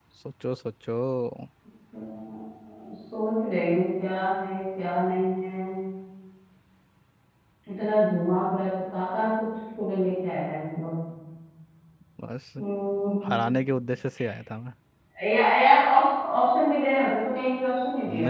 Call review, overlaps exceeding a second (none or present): none